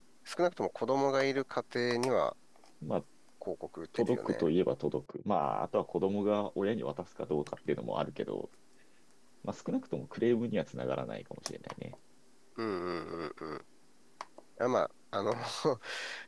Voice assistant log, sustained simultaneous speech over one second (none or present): none